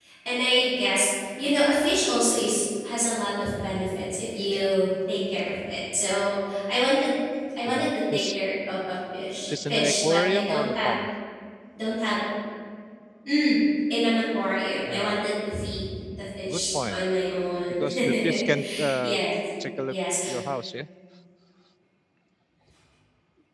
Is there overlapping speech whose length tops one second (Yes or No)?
Yes